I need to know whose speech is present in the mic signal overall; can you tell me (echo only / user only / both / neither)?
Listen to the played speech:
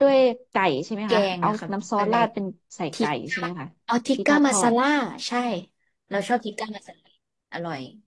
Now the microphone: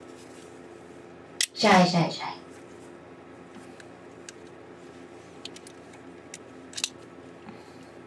user only